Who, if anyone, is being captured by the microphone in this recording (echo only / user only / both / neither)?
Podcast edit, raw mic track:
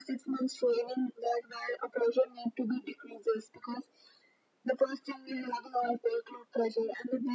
echo only